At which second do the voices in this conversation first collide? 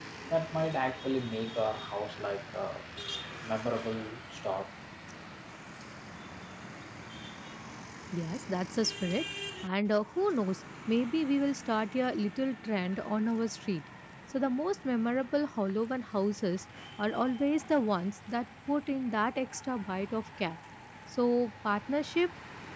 none

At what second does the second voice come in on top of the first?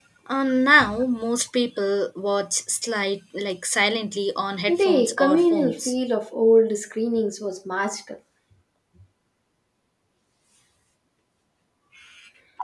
4.7 s

